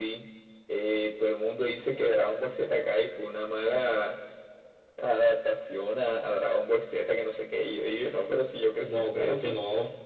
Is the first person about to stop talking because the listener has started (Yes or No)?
Yes